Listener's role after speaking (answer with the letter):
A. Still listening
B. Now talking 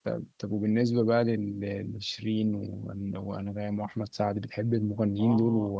B